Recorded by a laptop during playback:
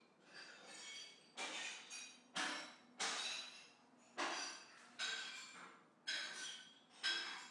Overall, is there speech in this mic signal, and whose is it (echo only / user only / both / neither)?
neither